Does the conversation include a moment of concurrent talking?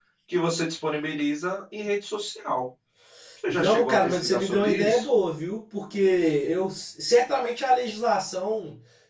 Yes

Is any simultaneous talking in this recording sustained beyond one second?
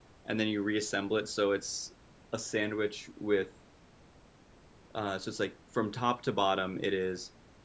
No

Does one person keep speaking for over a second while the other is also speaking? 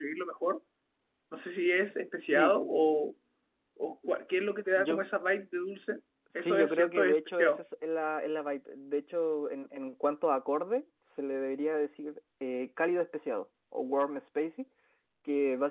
Yes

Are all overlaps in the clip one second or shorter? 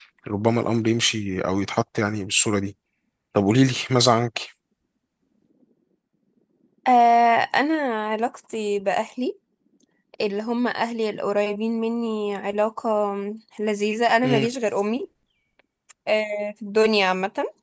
Yes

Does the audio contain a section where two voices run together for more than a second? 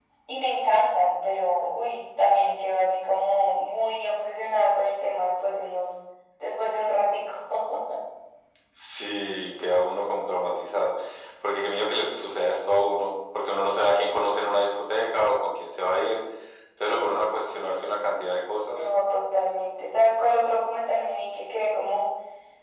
No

